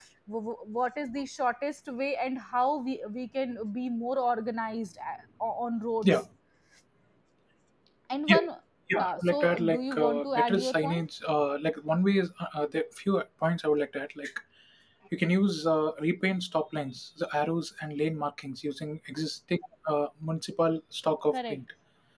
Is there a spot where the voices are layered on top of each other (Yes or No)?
Yes